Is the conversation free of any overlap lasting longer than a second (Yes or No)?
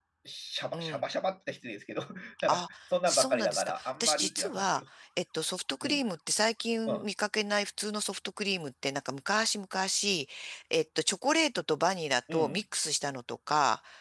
No